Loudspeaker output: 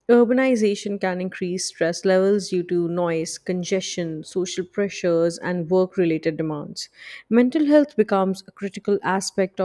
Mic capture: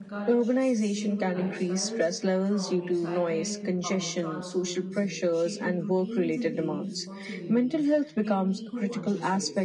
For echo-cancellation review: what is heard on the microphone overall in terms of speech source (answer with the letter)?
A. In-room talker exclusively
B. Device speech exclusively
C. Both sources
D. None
C